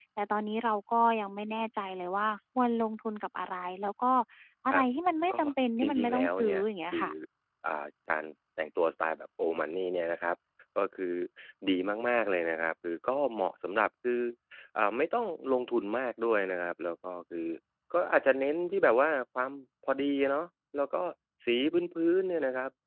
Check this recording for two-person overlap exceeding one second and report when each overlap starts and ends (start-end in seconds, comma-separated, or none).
5.8-7.1